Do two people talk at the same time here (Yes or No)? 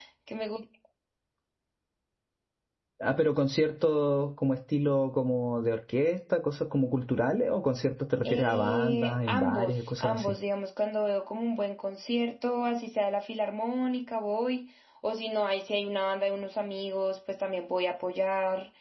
Yes